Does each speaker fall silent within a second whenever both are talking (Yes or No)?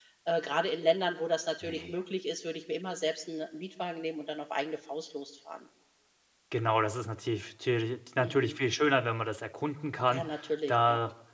Yes